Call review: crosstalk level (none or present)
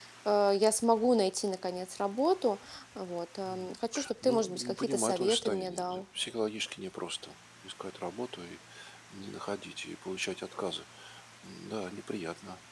present